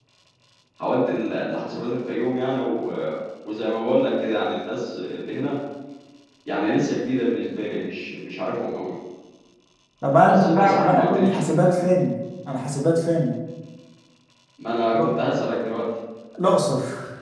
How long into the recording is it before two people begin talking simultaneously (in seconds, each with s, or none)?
10.3 s